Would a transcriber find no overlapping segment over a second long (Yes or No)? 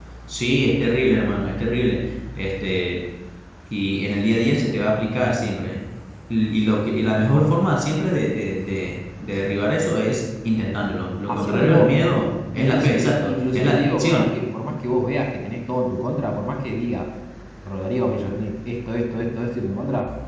No